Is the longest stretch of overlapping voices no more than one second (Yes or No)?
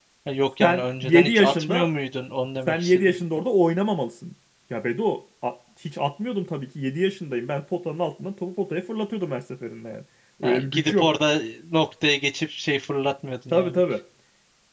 No